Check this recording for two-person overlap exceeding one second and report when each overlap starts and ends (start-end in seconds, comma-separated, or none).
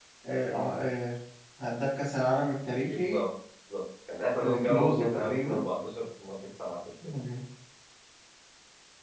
4.4-5.6